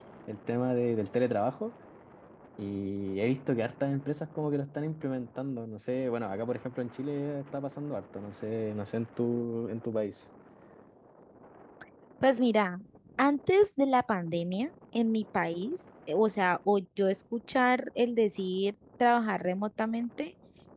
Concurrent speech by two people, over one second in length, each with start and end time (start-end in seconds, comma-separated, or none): none